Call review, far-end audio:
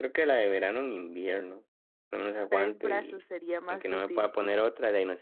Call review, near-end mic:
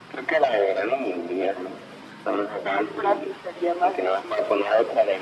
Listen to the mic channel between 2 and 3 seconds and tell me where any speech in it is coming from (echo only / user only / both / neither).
echo only